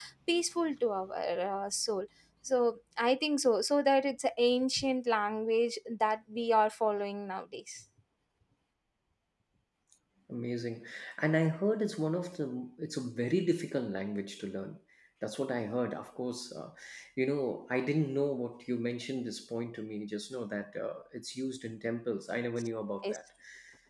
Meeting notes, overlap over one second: none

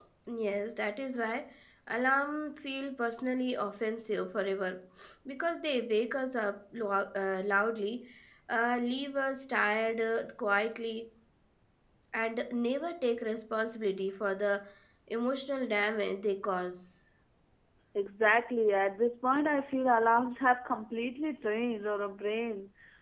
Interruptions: none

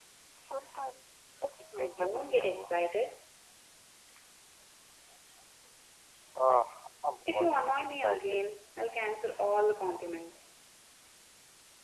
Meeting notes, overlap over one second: present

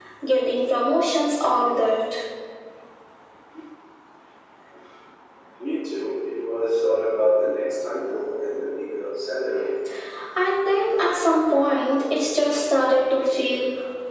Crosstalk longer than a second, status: none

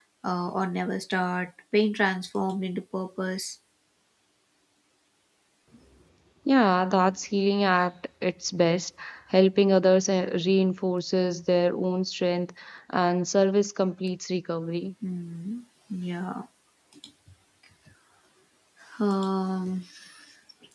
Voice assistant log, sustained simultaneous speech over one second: none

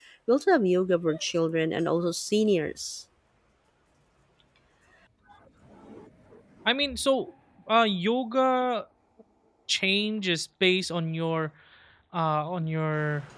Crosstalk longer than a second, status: none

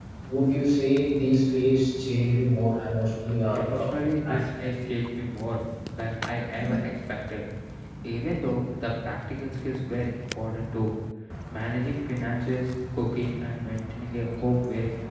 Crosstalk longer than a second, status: present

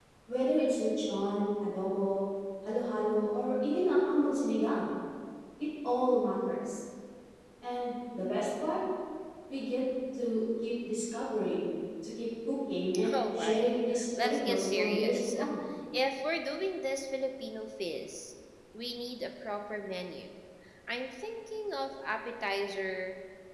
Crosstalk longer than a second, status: present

